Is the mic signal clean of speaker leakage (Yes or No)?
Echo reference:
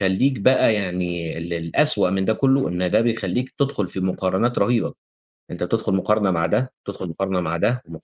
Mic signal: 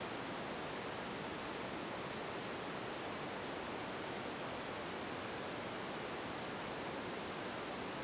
Yes